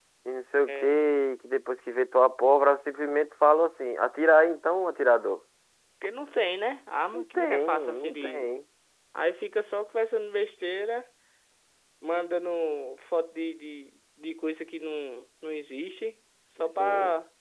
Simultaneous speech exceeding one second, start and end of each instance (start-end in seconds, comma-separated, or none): 7.1-8.5